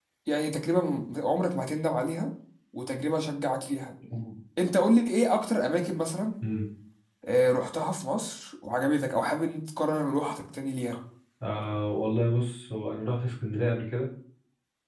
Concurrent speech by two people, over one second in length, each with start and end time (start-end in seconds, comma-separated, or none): none